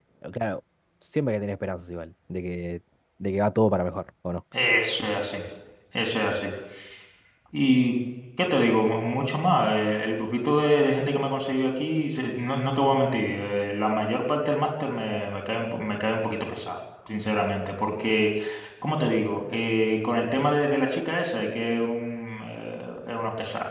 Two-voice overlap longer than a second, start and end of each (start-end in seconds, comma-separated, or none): none